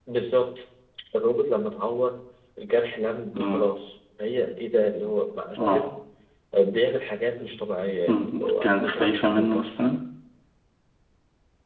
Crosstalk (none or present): present